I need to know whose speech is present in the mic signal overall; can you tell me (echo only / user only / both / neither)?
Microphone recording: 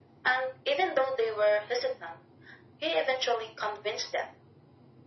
echo only